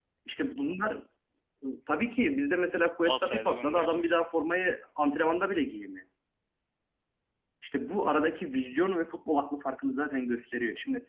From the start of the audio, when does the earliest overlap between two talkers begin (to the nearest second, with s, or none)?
3 s